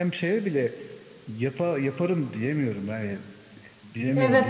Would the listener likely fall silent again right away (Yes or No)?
No